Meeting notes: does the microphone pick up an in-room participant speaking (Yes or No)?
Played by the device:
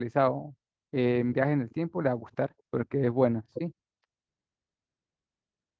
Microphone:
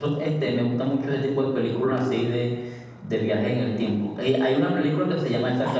Yes